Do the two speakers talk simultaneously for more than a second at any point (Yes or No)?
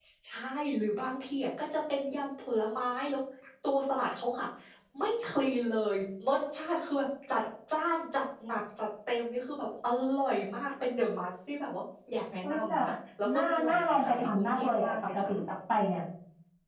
Yes